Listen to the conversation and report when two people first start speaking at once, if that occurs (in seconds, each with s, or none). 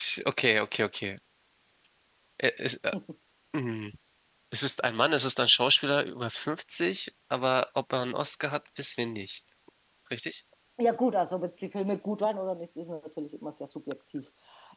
none